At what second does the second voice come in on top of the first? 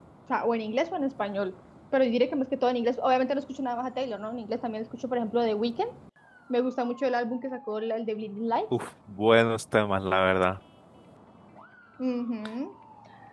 none

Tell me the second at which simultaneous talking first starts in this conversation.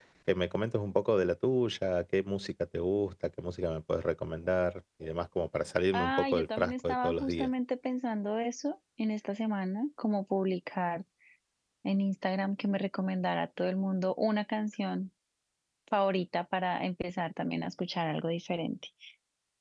5.9 s

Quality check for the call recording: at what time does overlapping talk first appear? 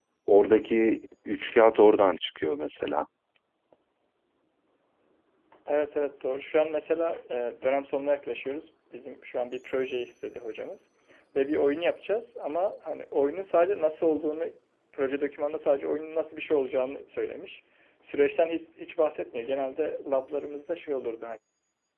none

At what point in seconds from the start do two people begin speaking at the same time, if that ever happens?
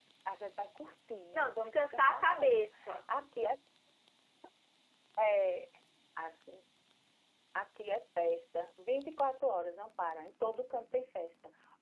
1.3 s

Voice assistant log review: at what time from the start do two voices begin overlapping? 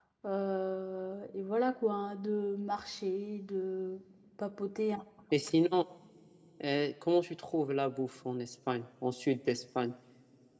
none

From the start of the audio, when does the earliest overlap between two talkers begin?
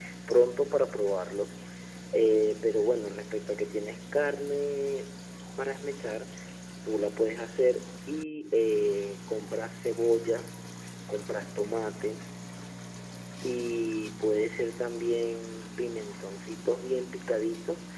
none

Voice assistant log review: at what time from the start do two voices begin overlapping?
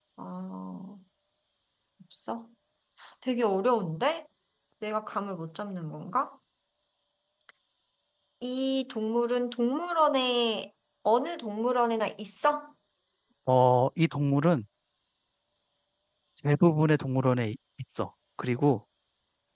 none

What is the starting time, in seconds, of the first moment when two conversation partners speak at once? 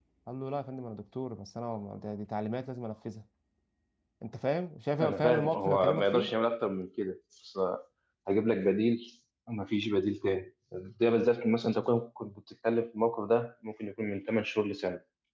5.0 s

